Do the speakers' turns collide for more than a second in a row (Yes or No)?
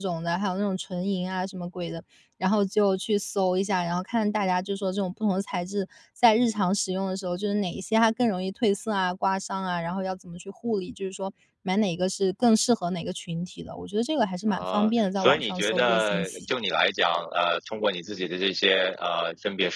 Yes